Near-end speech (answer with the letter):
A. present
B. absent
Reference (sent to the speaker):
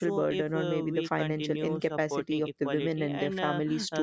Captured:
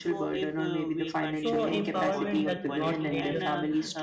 A